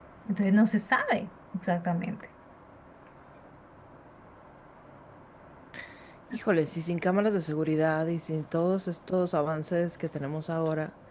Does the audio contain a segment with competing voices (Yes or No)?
No